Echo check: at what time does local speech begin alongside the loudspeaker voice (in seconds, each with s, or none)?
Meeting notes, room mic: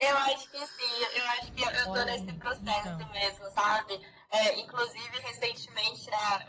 1.8 s